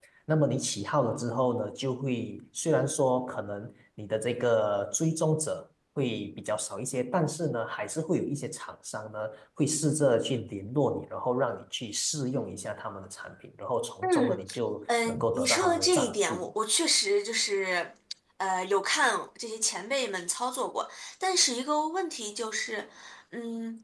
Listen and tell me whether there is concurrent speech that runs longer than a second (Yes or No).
Yes